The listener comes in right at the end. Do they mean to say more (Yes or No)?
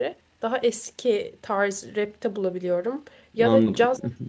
No